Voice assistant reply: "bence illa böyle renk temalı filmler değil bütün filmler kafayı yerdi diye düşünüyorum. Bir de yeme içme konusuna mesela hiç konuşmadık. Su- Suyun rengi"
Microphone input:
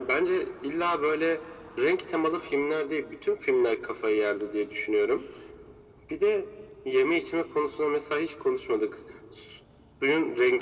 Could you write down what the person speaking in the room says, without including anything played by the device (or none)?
none